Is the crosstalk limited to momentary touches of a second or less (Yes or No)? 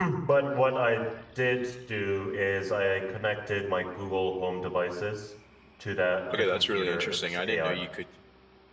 No